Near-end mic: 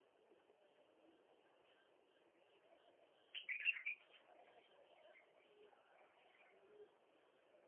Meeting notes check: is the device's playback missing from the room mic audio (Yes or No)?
Yes